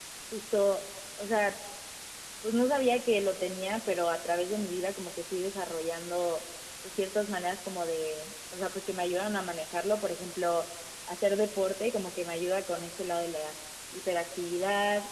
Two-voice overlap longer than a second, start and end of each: none

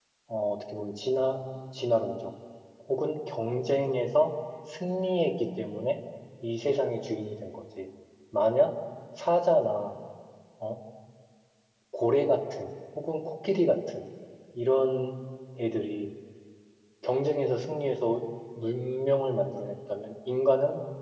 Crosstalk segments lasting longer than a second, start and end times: none

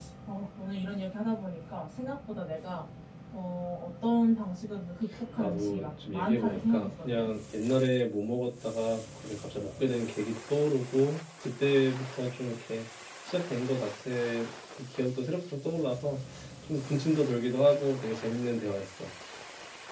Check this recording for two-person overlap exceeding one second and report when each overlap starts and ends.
5.4-7.3

